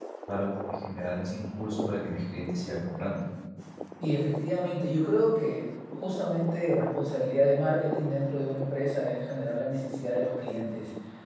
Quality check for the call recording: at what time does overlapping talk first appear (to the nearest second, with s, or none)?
none